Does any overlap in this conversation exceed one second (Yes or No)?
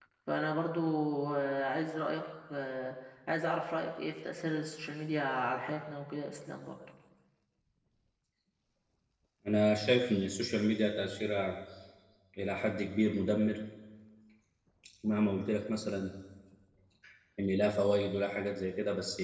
No